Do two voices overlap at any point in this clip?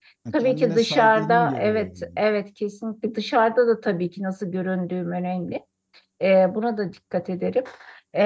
Yes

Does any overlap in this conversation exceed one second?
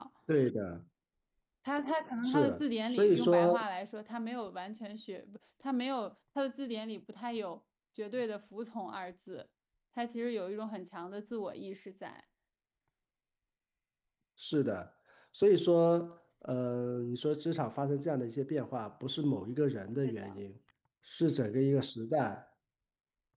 Yes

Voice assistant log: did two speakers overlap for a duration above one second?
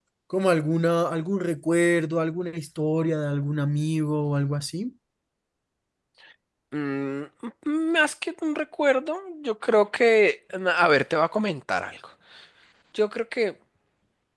No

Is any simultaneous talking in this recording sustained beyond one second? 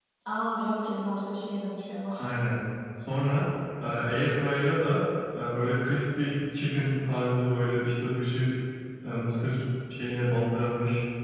No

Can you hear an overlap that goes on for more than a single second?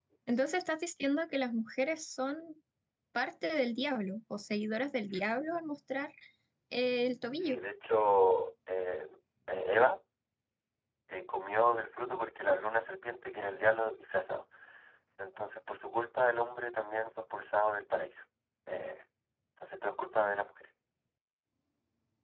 No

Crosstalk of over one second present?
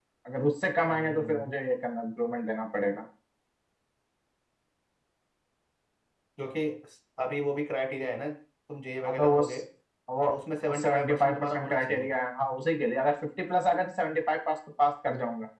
Yes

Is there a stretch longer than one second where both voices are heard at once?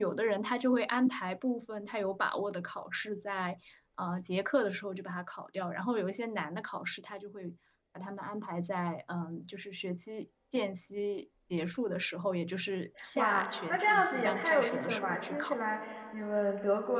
Yes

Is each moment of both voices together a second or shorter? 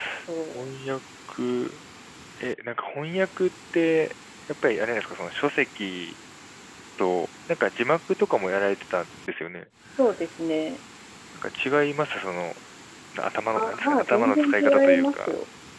No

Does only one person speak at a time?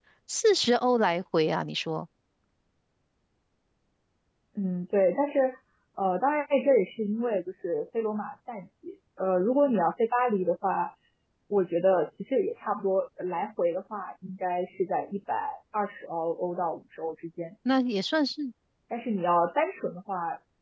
Yes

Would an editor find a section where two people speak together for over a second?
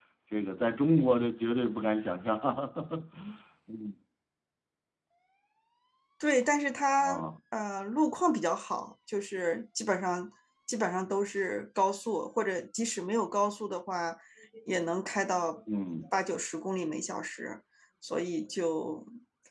No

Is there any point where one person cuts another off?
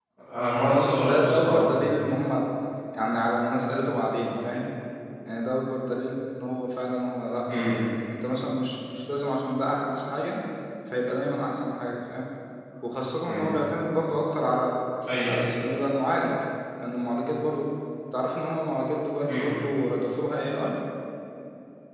Yes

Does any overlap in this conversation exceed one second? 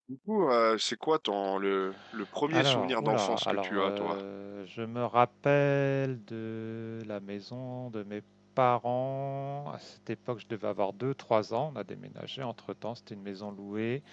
Yes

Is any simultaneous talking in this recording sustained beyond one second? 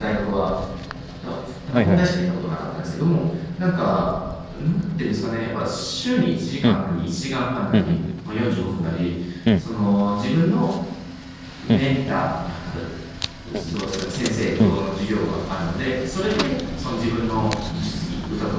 No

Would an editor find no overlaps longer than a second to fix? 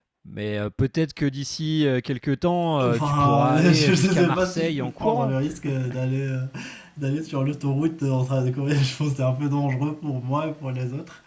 No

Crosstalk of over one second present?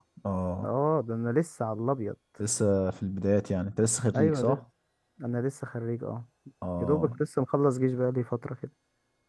No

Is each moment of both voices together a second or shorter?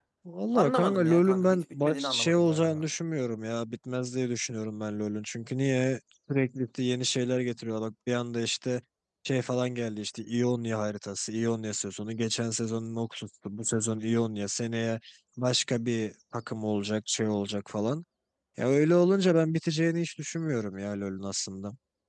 No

